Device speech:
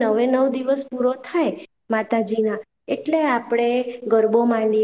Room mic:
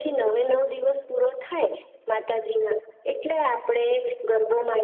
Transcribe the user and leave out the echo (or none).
none